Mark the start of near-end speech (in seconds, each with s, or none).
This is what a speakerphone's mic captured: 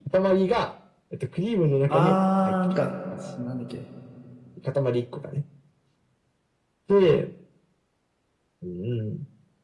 1.9 s